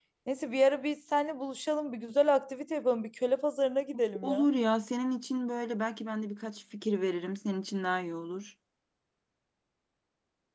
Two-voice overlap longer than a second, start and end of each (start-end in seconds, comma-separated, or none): none